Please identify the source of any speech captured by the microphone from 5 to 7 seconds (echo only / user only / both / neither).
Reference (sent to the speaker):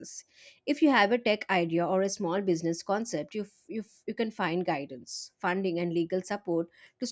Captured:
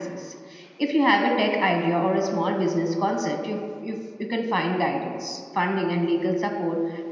echo only